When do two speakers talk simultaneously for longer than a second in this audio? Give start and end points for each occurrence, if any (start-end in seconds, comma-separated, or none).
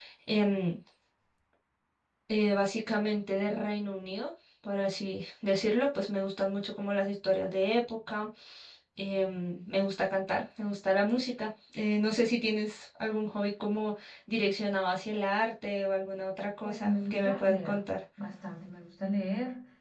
16.6-17.9